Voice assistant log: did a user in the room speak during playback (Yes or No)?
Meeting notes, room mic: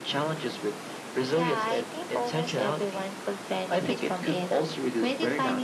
No